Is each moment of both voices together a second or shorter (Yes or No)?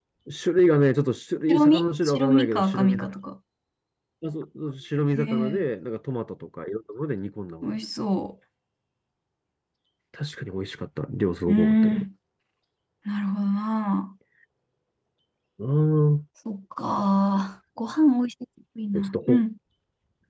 No